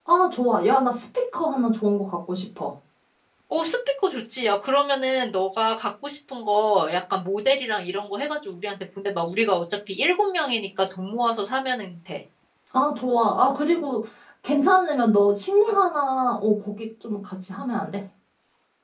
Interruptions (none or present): none